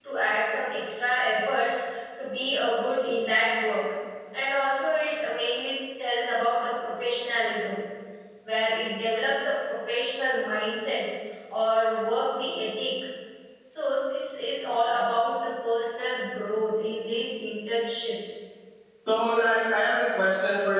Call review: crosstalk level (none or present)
none